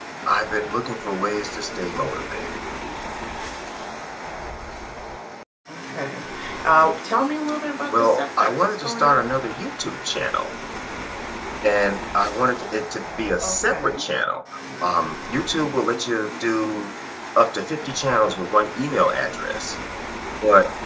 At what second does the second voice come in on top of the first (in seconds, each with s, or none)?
8.0 s